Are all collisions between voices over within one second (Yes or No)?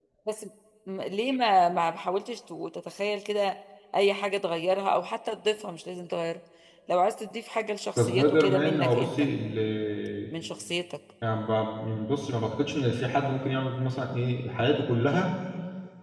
No